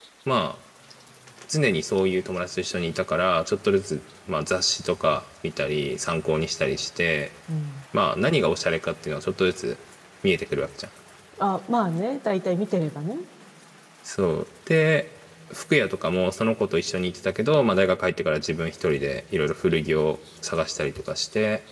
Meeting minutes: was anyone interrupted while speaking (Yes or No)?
No